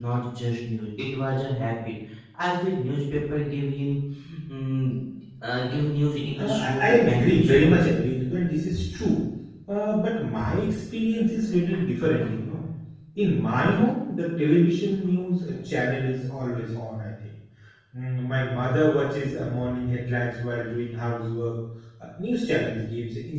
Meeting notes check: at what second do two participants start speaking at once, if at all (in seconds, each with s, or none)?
6.4 s